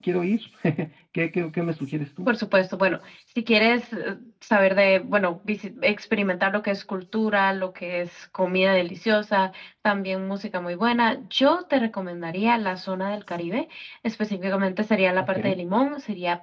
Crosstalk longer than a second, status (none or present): none